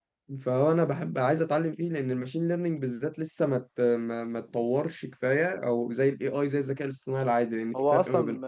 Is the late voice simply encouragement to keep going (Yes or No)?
No